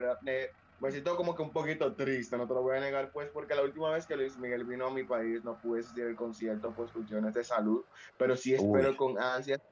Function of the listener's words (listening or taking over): listening